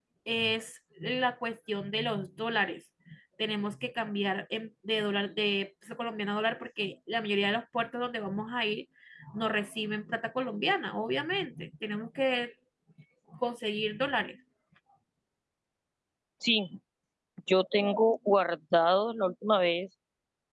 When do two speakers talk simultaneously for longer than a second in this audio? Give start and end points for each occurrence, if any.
none

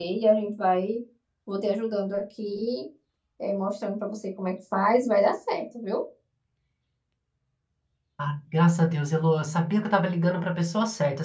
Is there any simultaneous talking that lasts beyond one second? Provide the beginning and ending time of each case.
none

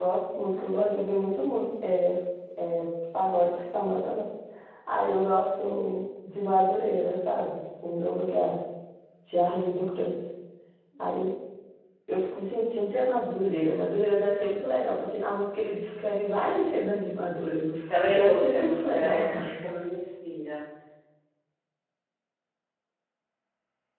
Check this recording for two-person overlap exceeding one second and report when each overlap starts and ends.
17.8-19.6

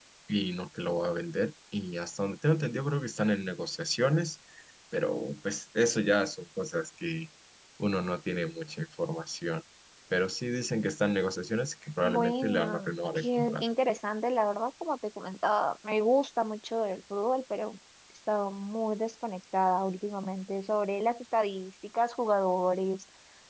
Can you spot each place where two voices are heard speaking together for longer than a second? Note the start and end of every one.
12.0-13.6

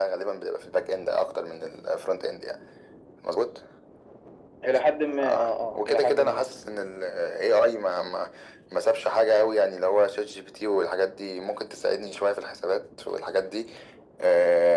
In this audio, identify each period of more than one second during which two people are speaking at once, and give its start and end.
5.2-6.6

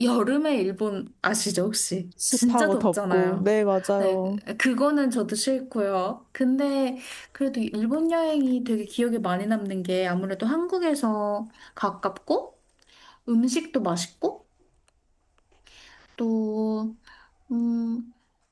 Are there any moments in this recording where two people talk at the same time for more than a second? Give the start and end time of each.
2.3-3.5

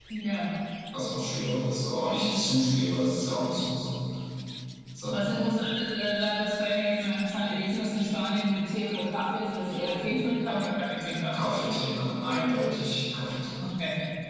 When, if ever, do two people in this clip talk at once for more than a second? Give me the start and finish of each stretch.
none

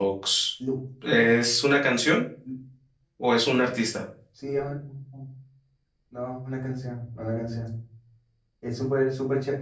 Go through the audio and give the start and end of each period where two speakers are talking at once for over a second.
none

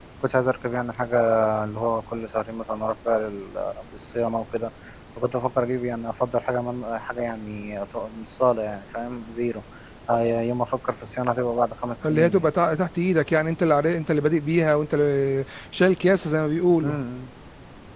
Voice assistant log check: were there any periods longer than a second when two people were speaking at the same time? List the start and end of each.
none

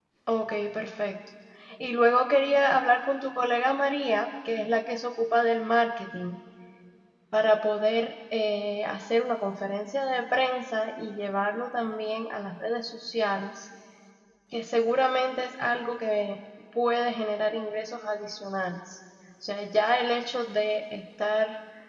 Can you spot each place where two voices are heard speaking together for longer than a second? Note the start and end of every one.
none

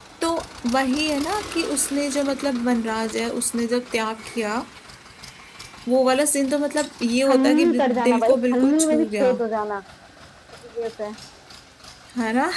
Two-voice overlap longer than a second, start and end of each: 7.2-9.3

